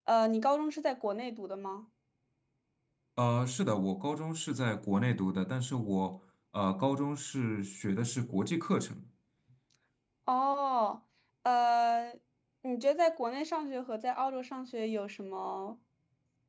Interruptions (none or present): none